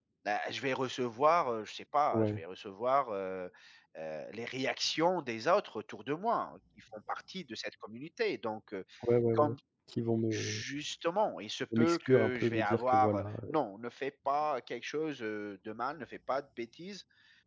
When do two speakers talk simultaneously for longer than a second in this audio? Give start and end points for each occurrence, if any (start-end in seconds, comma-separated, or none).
11.8-13.5